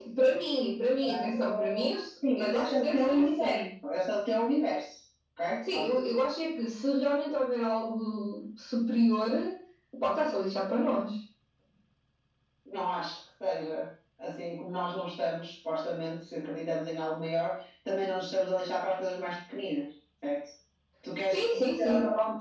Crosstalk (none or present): present